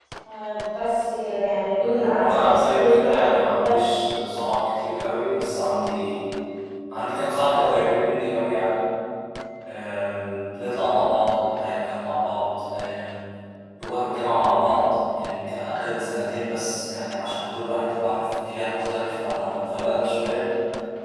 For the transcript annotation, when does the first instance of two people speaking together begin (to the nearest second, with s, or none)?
2 s